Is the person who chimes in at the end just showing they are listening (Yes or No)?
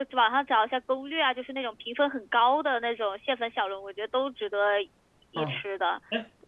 No